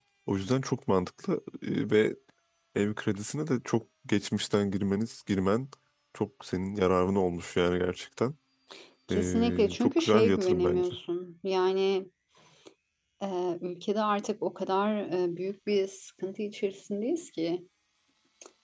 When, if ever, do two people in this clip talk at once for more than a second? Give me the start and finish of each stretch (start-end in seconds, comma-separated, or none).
9.1-10.9